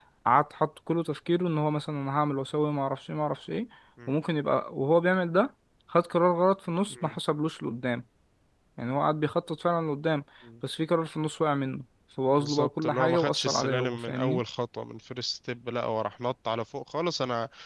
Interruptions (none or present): present